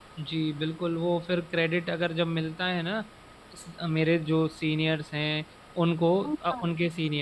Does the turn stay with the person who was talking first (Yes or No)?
Yes